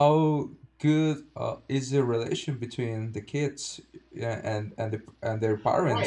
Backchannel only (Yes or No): No